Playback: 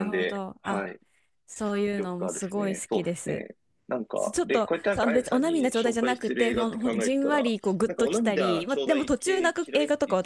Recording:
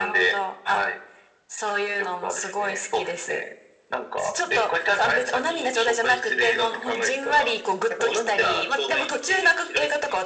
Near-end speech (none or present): none